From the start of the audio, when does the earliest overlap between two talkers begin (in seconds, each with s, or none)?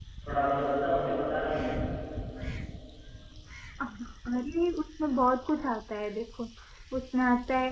none